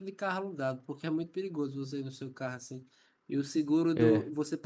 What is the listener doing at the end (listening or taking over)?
listening